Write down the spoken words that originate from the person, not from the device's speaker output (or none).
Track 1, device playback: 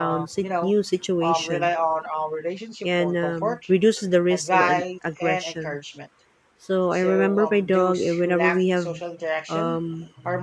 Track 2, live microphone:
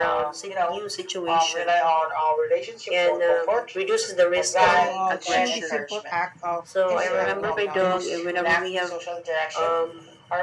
So, uh, through the simple act of interacting with others,